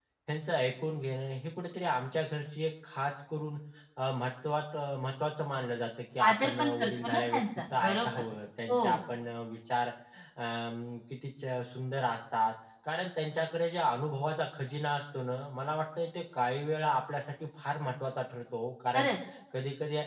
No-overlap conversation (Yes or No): No